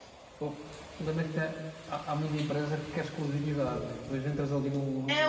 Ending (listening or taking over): taking over